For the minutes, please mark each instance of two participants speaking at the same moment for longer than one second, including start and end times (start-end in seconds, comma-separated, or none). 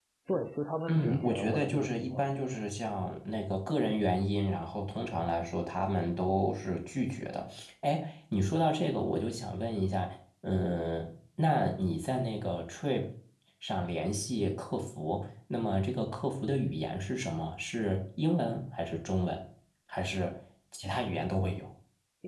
0.9-2.3